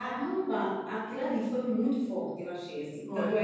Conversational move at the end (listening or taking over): listening